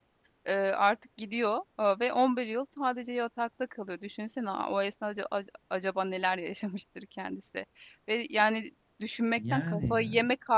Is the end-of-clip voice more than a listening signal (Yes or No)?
No